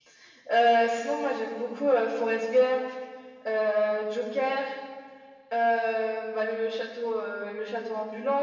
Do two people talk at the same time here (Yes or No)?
No